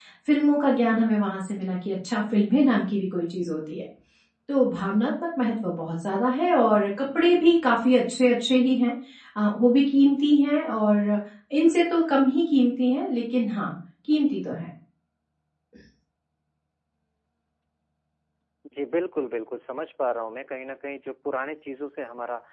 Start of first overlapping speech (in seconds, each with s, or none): none